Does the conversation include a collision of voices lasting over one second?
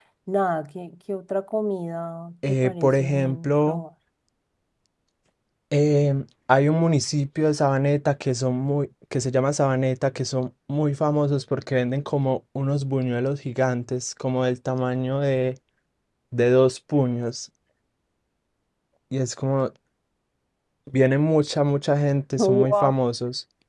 Yes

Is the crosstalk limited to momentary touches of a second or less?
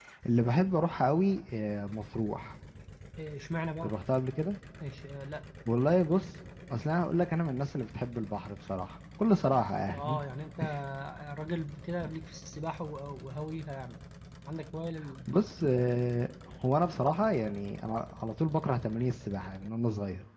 Yes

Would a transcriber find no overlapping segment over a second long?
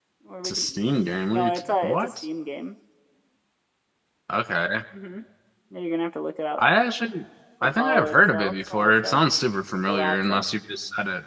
No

